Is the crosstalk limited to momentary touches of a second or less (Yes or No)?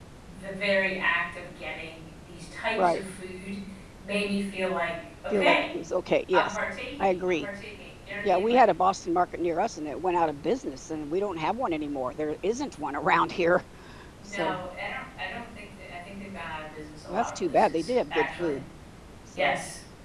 No